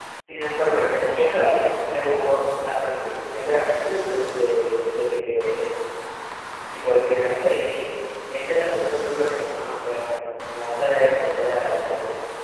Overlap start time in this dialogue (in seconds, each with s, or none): 1.4 s